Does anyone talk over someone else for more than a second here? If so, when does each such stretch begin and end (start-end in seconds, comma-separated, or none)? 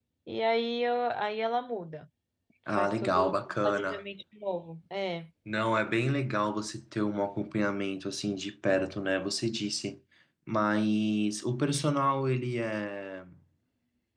2.7-4.0